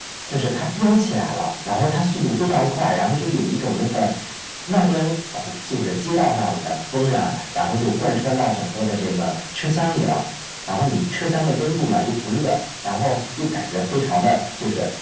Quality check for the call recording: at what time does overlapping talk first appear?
none

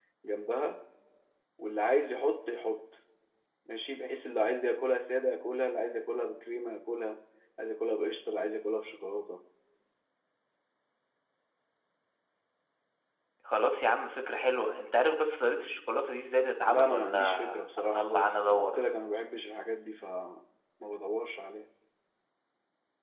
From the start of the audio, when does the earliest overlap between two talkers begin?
17 s

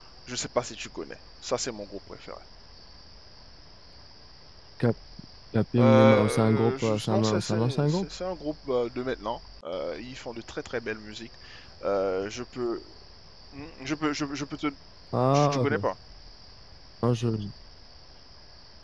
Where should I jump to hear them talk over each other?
6 s

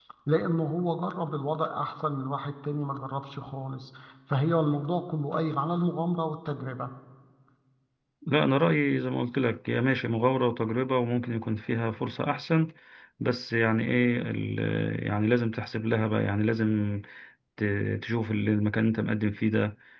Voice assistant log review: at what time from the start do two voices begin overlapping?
none

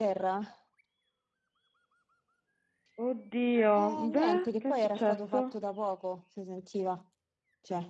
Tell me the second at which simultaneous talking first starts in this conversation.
4 s

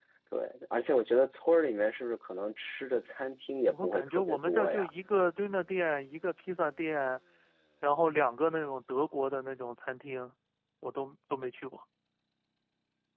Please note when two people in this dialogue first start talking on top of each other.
4 s

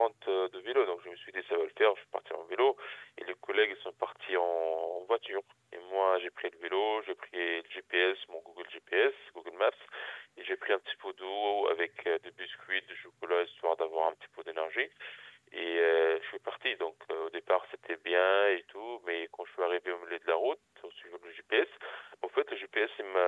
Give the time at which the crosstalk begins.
none

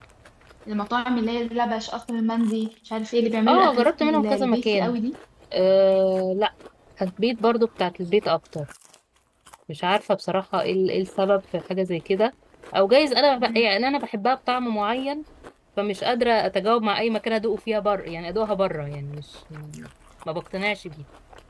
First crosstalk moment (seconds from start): 3 s

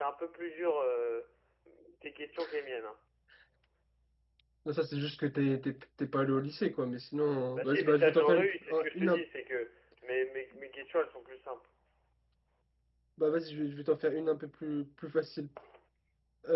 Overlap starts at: 8 s

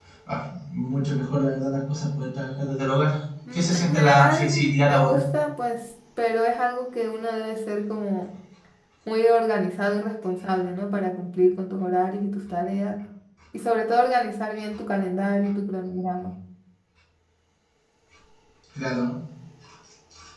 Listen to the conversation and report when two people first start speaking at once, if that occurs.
4 s

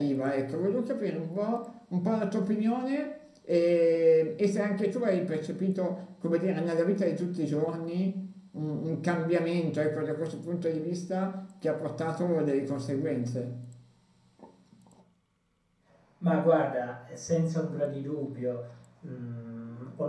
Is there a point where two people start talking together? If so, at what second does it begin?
none

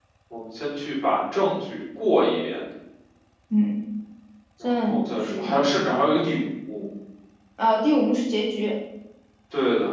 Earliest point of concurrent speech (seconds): 5 s

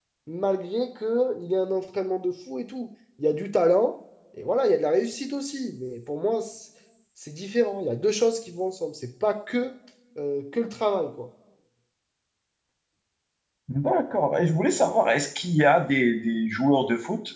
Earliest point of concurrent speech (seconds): none

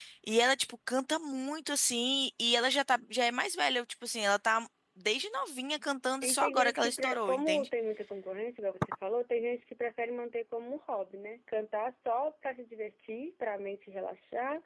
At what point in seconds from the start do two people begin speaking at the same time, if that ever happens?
6 s

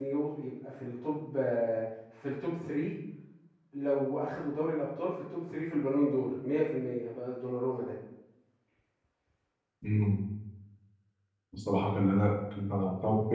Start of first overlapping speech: none

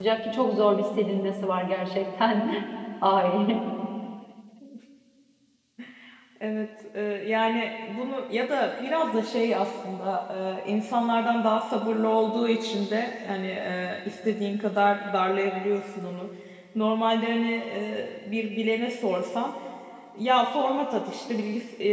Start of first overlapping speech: none

